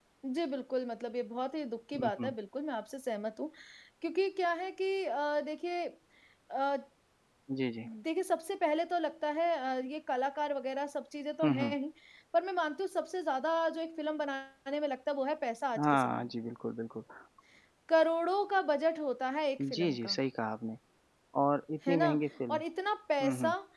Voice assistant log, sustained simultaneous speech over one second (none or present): none